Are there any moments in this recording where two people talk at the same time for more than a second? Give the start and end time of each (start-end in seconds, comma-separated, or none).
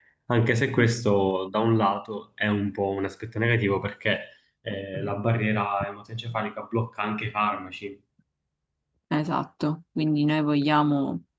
none